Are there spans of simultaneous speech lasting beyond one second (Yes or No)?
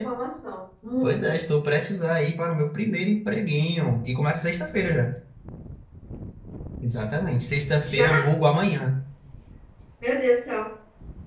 No